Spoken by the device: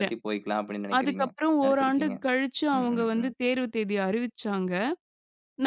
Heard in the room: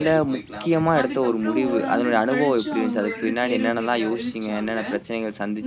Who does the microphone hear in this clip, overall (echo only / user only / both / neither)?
both